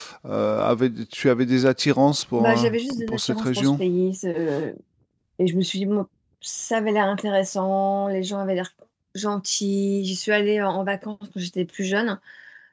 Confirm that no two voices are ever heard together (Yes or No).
No